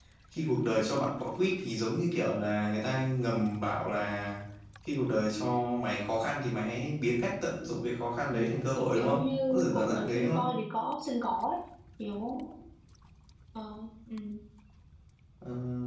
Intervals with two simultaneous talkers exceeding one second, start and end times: 8.3-10.5

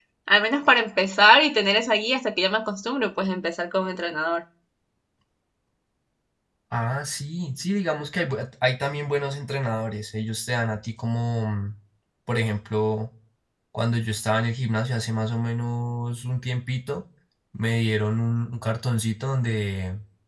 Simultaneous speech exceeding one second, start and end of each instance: none

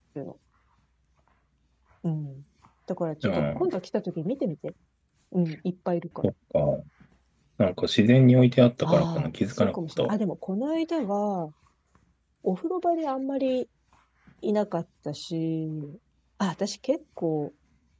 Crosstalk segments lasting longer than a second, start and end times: 8.8-10.2

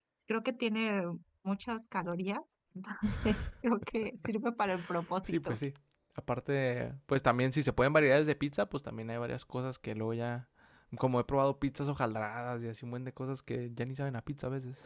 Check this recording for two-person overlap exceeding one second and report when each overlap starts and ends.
none

